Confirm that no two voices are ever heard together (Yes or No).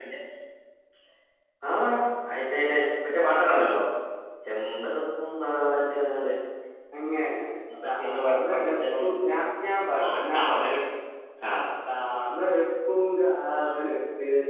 No